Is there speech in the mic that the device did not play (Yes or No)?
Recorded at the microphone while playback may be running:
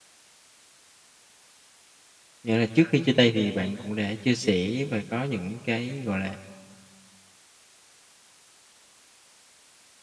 Yes